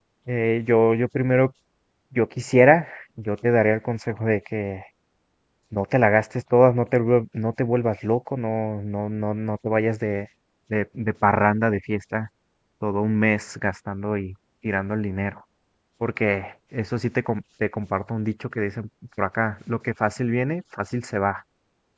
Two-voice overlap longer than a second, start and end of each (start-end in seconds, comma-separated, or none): none